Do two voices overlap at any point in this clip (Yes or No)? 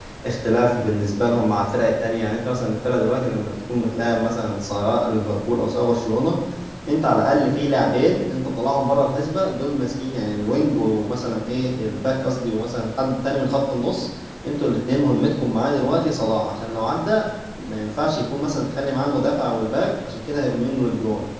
No